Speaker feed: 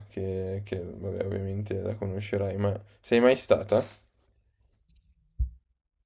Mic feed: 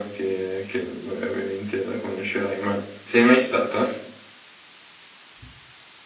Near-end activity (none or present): none